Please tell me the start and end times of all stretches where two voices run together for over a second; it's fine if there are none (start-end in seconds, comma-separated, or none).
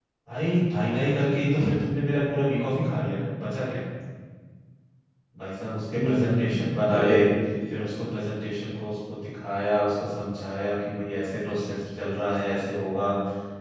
6.0-7.2